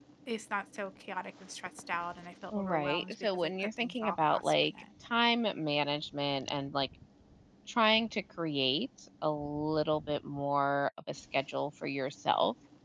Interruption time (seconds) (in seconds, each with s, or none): 2.5 s